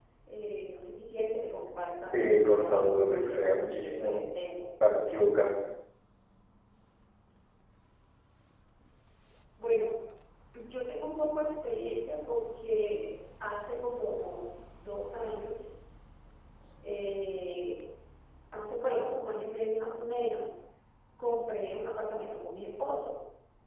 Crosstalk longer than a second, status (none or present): present